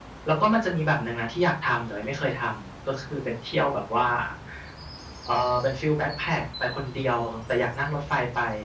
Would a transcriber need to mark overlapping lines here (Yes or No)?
No